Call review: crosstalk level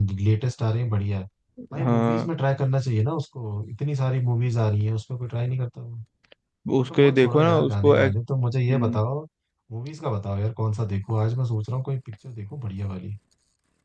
present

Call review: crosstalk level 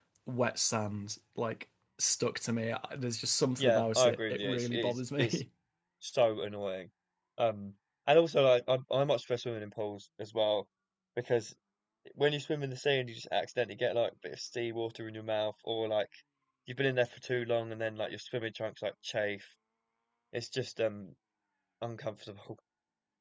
present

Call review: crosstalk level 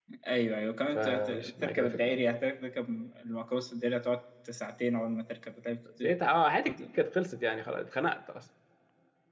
present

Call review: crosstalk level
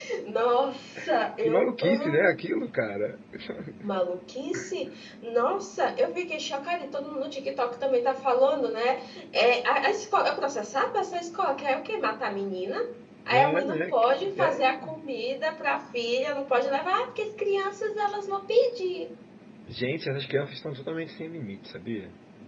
present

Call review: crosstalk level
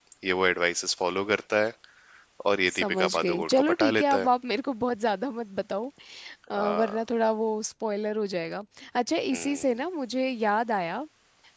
present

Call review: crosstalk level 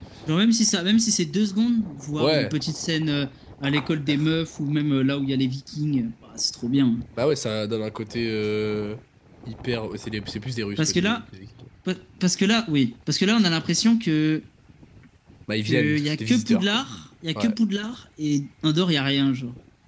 present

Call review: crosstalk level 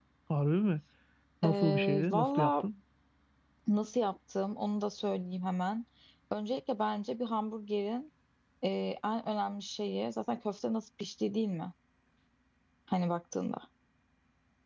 present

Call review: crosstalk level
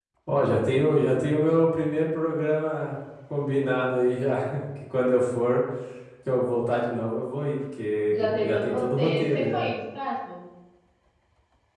present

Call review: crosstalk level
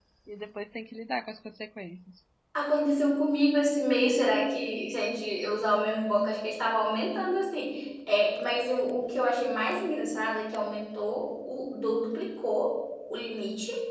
none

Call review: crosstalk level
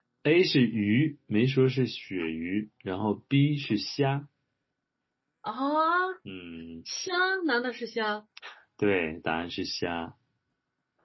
none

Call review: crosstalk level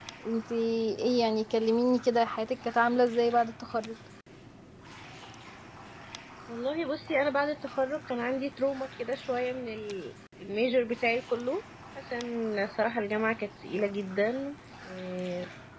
none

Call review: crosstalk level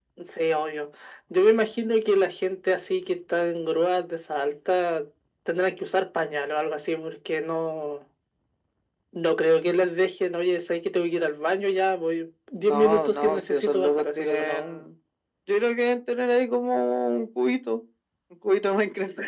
present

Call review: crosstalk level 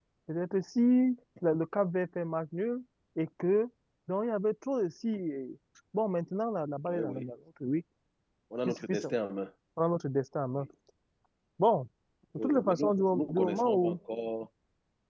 present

